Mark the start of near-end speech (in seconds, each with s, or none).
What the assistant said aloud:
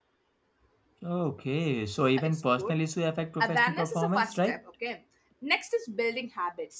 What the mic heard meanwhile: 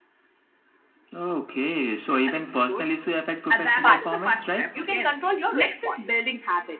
3.7 s